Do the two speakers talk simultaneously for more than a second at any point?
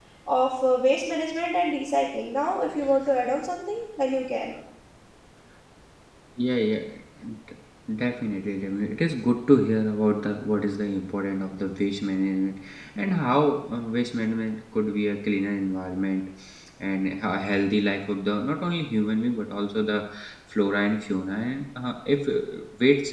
No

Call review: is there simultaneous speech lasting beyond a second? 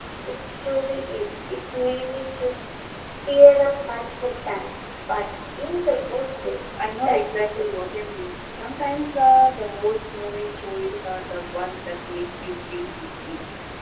Yes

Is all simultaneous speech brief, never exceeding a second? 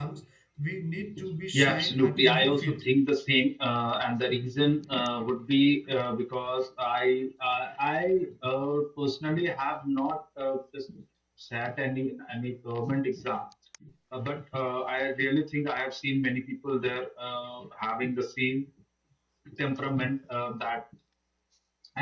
No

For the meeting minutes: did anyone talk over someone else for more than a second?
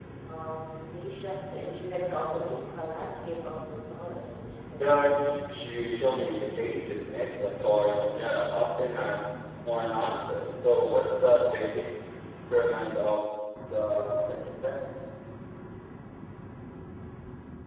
No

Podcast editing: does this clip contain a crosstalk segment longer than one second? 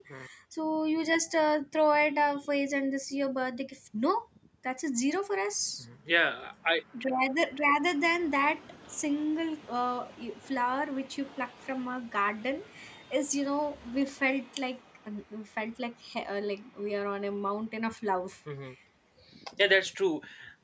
No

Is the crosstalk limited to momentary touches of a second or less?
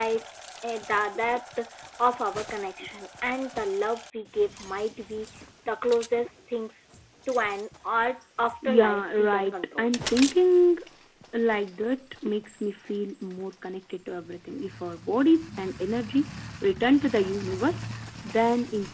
No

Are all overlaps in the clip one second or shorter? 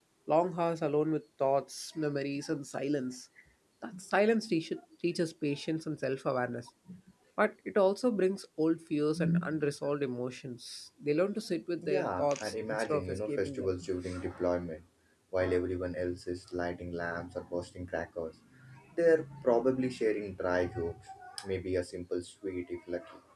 No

